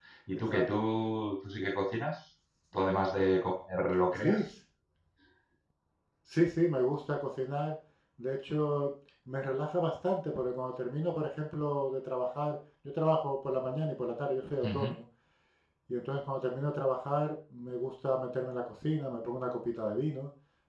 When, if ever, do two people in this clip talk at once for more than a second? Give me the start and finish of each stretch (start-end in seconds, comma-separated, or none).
none